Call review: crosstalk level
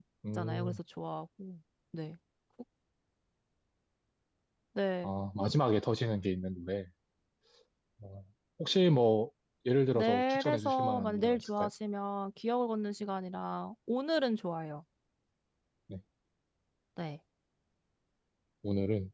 present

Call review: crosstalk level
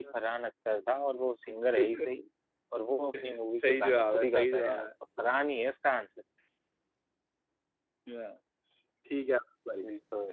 present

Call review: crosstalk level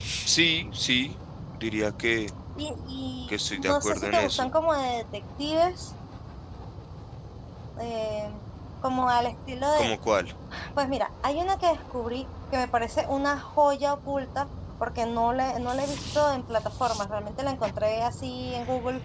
present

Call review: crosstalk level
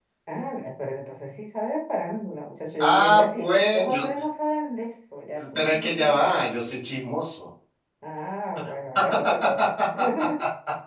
present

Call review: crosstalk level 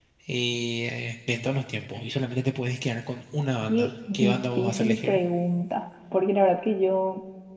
present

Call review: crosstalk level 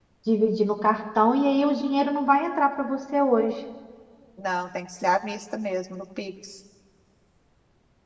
none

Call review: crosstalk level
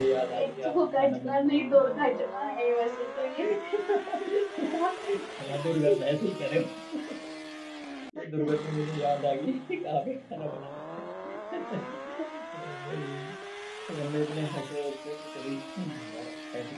present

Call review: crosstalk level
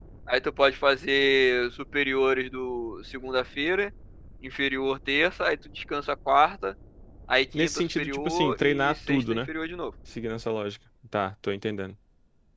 present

